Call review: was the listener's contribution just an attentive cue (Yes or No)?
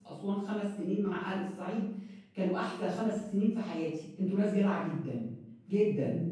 Yes